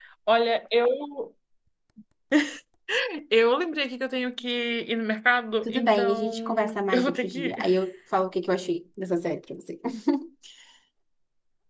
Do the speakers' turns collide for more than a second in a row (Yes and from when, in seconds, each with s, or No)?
Yes, from 5.6 s